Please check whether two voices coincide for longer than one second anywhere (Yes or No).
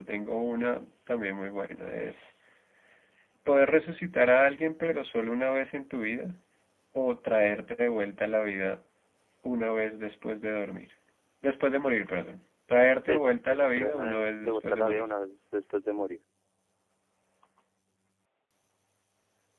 Yes